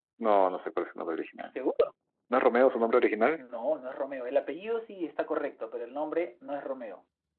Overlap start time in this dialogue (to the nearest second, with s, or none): none